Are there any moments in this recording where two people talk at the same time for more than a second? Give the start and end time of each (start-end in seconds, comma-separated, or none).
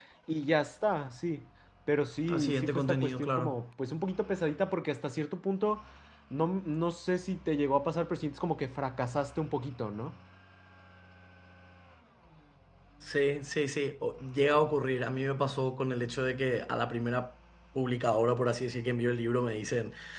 2.3-3.6